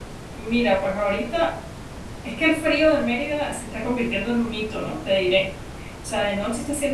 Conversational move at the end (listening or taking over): listening